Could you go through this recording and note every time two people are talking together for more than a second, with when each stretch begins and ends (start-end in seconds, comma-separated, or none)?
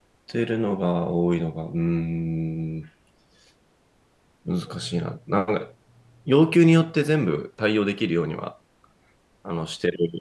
none